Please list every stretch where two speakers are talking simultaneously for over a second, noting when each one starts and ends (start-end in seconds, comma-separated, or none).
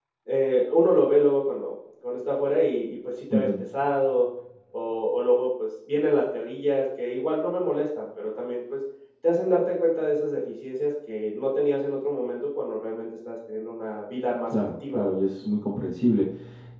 none